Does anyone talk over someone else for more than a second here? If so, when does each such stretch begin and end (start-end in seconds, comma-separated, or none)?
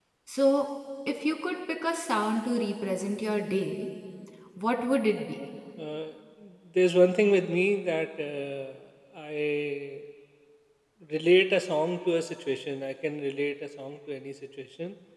none